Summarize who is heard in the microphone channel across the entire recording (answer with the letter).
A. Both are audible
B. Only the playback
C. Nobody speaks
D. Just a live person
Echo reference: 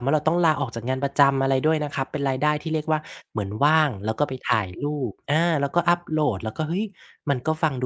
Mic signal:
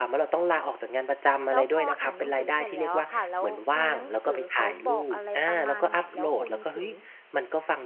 A